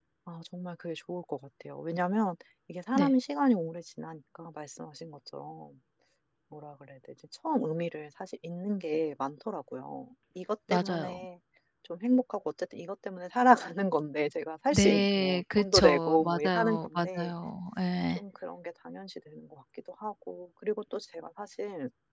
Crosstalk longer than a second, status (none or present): present